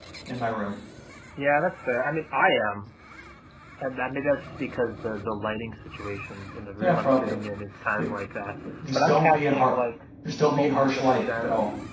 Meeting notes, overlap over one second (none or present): present